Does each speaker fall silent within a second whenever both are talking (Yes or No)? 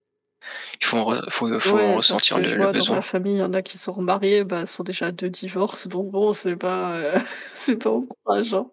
No